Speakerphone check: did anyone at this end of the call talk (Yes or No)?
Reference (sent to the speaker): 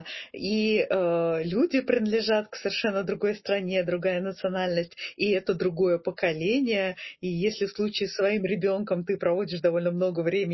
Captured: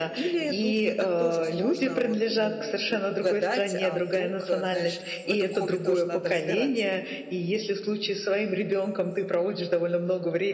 Yes